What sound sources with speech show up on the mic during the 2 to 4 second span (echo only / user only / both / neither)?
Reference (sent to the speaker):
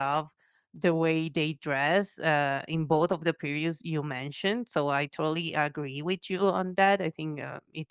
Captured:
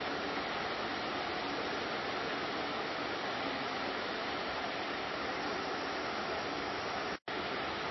neither